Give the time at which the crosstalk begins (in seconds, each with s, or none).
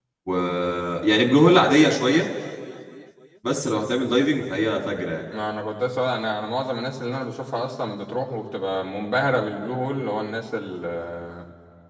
none